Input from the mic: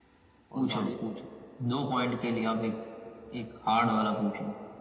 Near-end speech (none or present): present